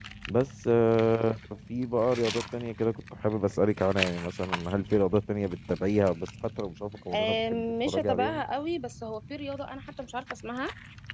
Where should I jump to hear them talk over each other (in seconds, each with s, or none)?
7.1 s